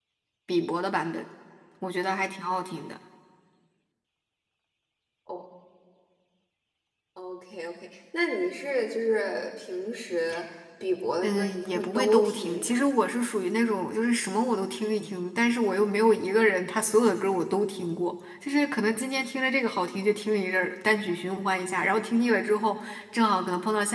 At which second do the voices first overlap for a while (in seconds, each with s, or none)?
11.2 s